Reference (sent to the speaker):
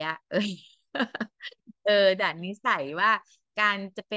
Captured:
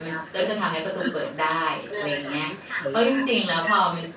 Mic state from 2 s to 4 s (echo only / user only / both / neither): both